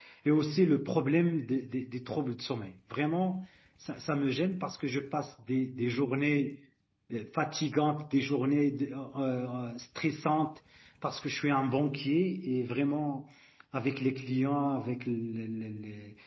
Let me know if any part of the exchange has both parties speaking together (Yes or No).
No